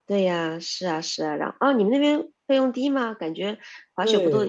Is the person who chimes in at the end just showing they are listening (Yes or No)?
No